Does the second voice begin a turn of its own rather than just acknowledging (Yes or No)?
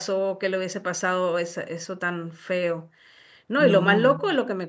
No